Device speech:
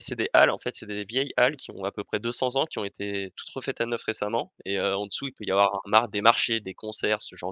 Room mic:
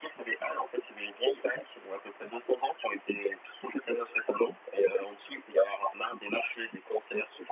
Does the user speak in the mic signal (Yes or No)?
No